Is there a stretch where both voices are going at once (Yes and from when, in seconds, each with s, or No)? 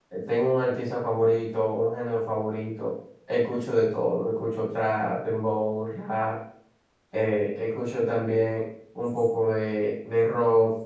No